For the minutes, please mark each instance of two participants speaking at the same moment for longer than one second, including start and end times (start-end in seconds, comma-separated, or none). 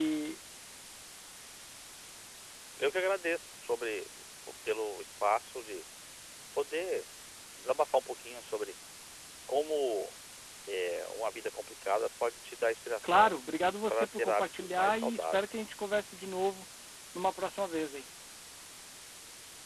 13.9-15.4